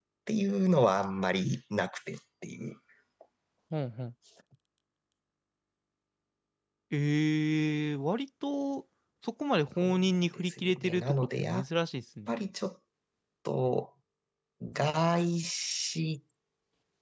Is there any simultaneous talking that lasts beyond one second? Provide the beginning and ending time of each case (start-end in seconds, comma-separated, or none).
9.8-11.6